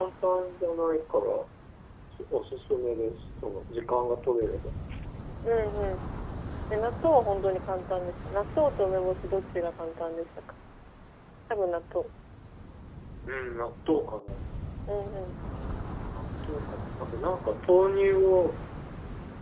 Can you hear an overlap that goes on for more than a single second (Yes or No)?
No